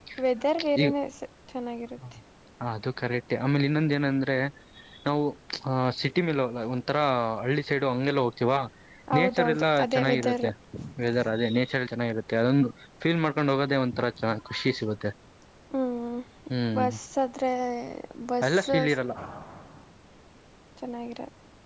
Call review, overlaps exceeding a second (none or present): present